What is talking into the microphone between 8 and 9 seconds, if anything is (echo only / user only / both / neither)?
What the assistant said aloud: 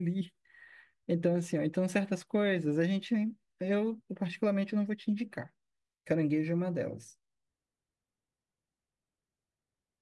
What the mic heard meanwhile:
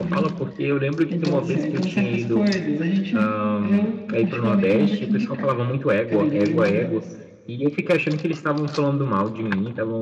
user only